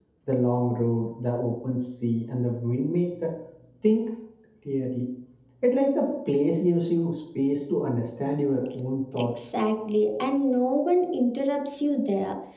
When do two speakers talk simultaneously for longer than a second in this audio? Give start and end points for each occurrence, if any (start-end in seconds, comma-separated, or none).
none